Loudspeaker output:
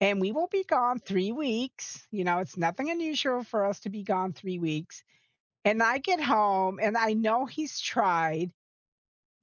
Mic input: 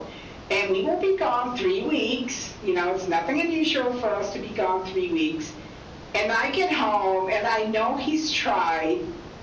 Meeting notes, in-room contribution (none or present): none